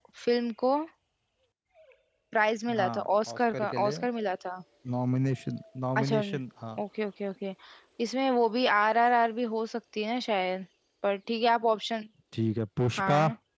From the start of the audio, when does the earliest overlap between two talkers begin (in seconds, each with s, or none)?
2.7 s